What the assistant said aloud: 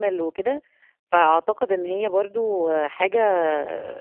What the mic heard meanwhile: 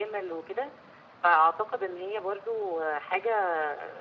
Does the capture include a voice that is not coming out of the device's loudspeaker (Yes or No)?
No